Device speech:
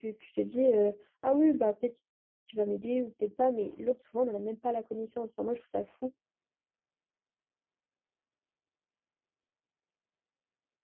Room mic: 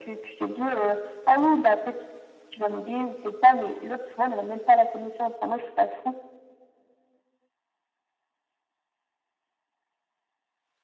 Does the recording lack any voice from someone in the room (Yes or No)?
Yes